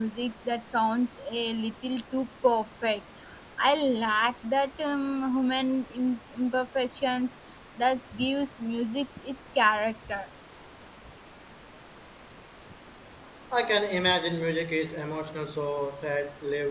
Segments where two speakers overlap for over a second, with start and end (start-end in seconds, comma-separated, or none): none